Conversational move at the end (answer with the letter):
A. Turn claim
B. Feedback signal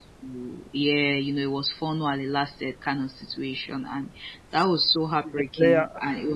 B